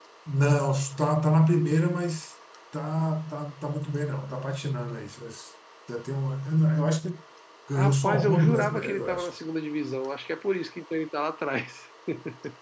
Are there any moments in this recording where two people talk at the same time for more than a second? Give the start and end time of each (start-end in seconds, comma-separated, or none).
7.8-9.3